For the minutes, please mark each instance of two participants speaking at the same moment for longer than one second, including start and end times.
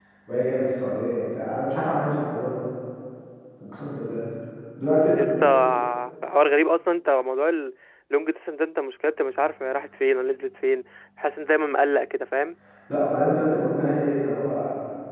none

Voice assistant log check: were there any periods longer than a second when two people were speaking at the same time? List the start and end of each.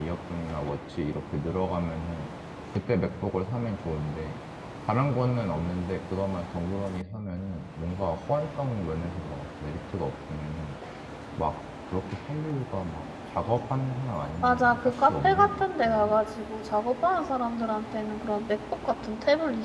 14.4-16.2

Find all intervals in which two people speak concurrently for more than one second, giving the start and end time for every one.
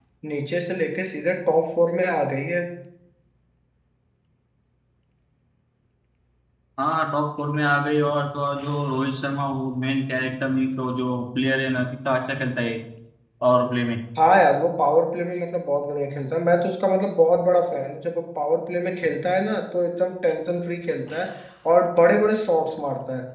none

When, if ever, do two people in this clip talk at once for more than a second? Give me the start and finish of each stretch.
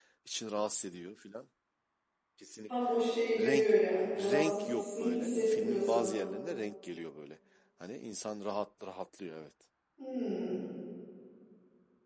4.3-6.2

